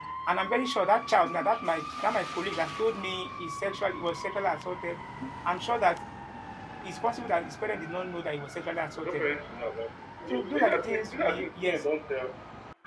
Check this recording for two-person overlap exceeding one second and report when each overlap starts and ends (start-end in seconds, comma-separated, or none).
10.3-11.8